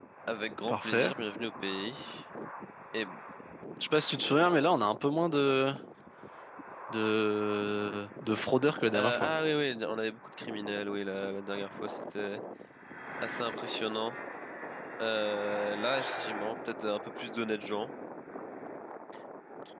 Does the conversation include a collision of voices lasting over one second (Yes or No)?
No